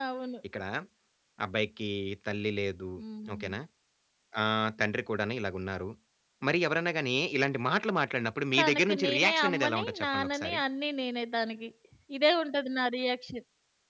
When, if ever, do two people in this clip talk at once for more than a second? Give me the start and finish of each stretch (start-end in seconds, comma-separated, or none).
8.6-10.6